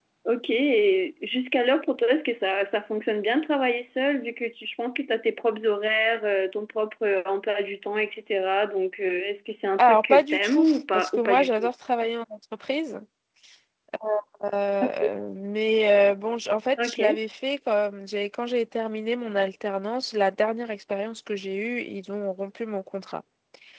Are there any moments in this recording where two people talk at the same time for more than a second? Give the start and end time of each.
9.8-11.7

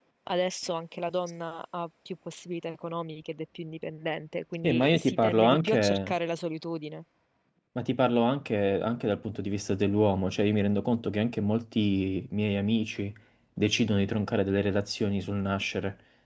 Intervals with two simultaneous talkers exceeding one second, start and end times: 4.6-6.1

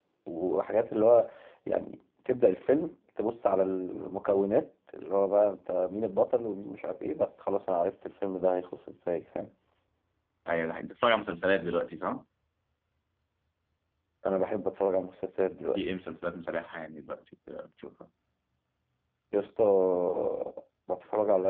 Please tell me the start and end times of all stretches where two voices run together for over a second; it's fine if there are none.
none

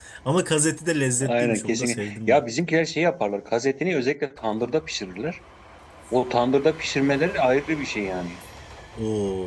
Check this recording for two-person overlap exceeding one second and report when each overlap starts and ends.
1.2-2.4

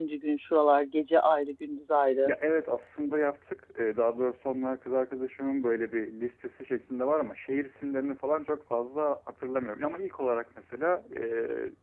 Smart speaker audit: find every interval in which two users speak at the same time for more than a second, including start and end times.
none

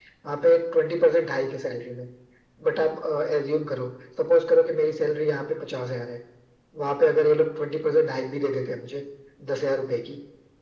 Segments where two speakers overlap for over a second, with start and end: none

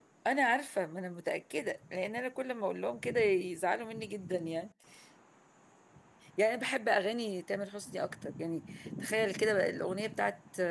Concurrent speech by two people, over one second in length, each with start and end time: none

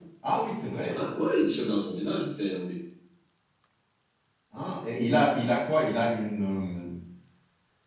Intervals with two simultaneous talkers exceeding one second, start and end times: none

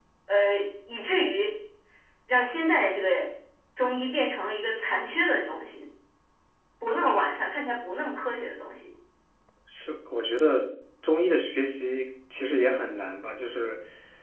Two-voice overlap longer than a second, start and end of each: none

